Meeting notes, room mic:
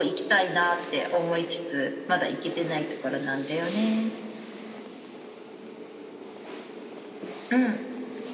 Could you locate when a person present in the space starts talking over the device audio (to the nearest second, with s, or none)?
none